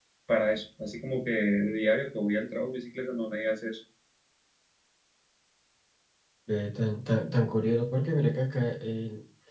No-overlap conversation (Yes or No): Yes